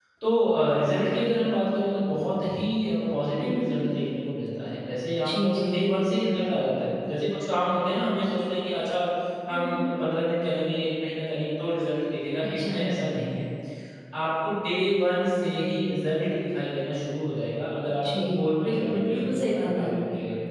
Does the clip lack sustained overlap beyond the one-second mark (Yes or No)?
No